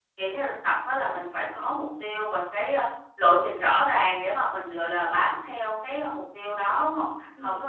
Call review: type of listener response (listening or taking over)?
listening